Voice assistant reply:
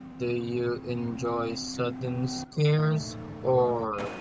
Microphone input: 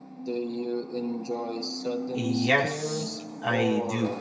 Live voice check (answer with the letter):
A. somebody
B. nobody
A